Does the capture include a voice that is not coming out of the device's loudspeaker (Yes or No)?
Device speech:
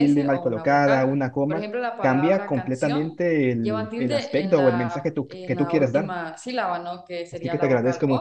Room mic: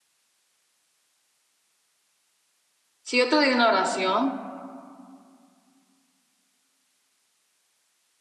Yes